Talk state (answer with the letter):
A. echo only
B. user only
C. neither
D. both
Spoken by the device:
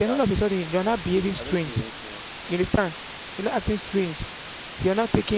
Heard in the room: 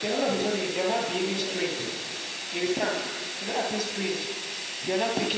A